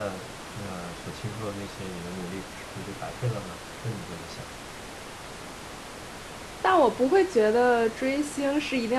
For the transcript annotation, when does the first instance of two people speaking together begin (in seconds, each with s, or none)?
none